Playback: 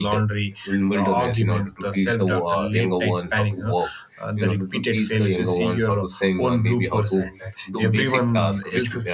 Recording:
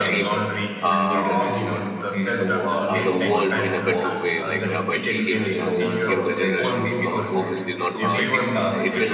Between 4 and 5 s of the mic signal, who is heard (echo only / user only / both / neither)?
both